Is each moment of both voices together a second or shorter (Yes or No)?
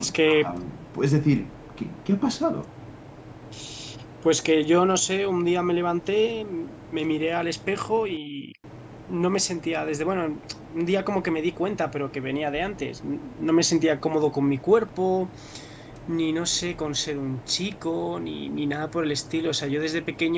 Yes